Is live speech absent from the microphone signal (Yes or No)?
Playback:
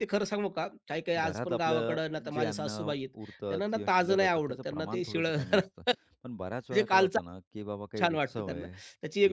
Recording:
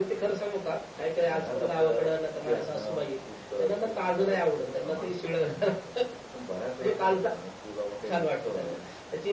Yes